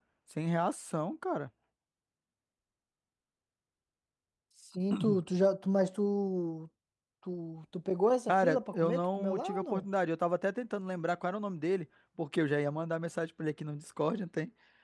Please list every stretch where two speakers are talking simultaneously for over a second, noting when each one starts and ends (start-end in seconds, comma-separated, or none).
8.3-9.8